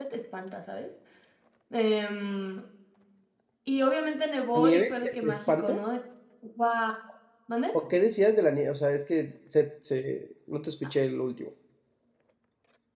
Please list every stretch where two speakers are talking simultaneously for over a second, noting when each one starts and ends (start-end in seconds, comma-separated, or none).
4.5-5.8